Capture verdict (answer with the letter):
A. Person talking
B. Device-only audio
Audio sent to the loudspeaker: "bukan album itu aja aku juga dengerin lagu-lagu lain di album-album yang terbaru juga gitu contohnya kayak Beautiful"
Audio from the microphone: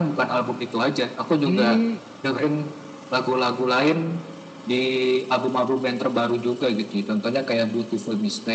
A